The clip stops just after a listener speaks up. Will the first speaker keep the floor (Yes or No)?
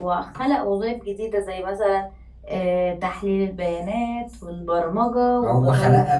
No